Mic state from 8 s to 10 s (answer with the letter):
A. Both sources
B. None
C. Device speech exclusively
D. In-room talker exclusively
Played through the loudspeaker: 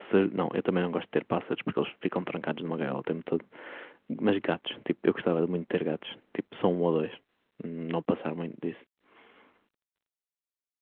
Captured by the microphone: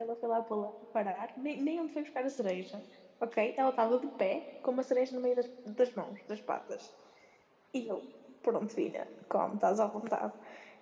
D